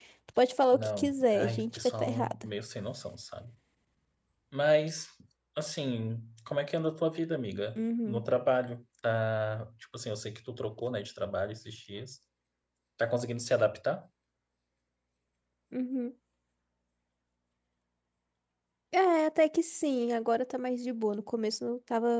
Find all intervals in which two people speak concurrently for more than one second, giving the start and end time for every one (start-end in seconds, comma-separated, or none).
0.7-2.4